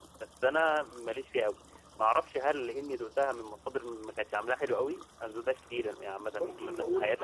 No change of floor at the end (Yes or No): No